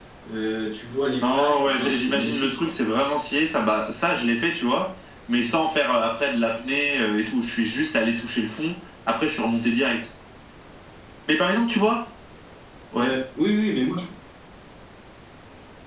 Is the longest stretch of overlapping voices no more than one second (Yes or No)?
No